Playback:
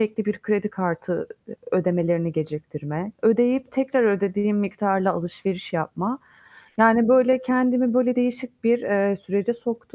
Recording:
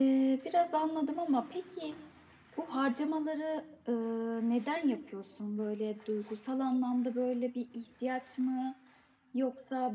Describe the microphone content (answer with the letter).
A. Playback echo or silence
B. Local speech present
B